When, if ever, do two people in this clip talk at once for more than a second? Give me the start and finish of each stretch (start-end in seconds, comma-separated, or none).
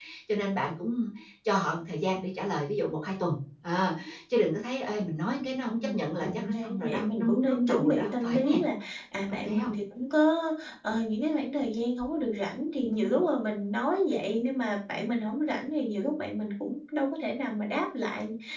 5.7-8.6